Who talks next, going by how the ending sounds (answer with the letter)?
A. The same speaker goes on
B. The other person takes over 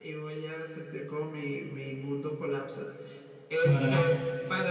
A